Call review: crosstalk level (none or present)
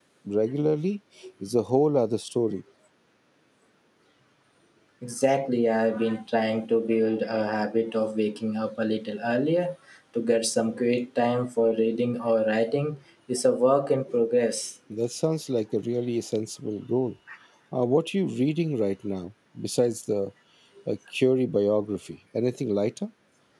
none